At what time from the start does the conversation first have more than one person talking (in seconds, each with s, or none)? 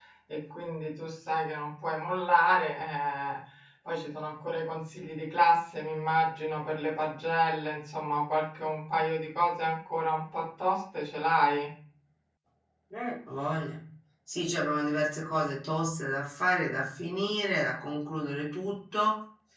none